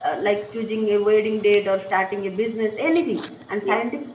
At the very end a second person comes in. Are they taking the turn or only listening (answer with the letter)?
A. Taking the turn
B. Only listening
B